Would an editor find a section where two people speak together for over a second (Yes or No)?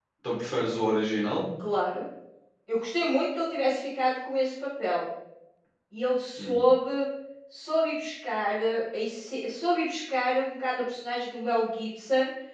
No